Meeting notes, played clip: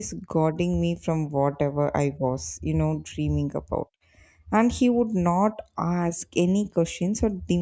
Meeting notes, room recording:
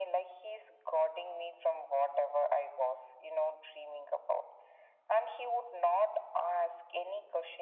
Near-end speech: none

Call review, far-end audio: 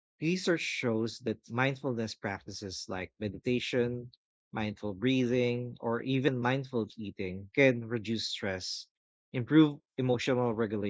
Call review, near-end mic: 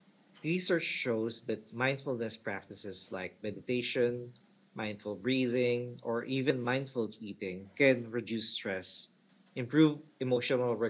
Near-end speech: none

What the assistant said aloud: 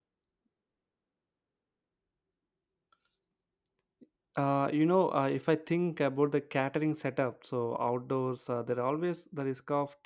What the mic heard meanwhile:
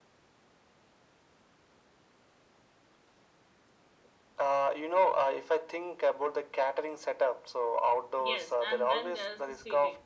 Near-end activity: present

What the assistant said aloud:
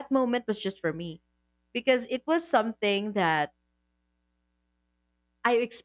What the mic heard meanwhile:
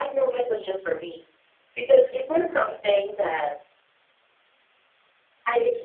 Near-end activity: none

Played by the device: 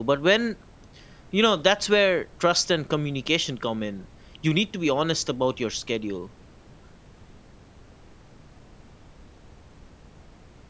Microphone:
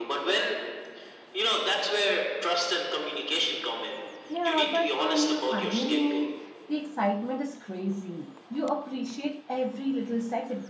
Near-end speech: present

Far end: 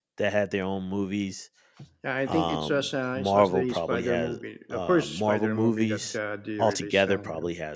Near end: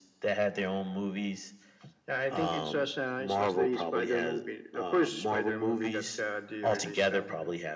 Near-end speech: none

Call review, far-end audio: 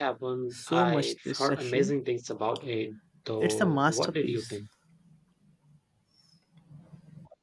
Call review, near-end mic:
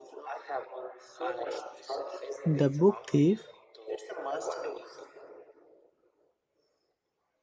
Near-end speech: present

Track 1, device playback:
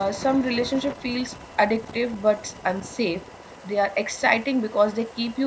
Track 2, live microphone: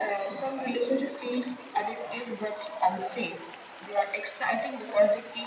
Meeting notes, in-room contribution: none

